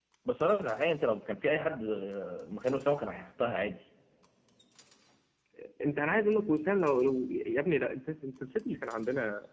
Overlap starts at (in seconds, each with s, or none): none